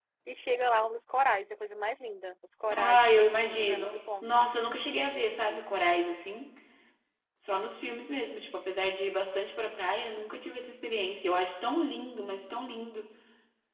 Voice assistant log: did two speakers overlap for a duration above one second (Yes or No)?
Yes